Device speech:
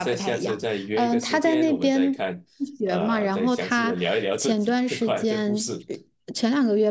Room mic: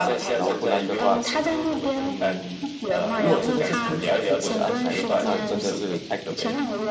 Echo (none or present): present